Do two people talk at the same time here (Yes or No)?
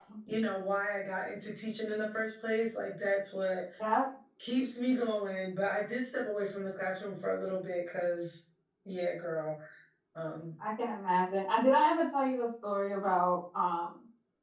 No